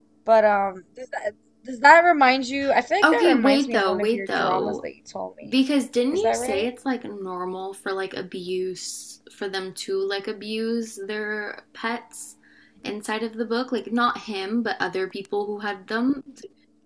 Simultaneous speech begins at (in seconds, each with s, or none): 3.1 s